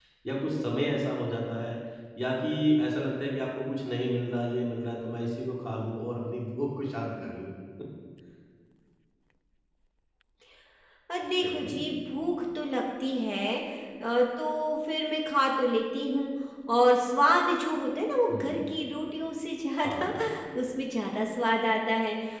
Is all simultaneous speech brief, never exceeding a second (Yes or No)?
Yes